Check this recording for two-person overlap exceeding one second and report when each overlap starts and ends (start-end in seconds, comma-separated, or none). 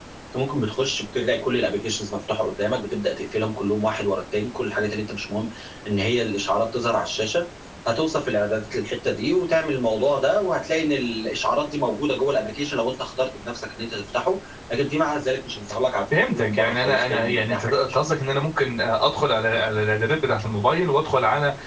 16.3-17.8